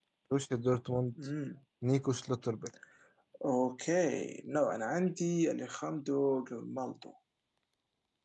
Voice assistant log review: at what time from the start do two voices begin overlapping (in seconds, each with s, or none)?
none